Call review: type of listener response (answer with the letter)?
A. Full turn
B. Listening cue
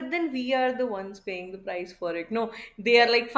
B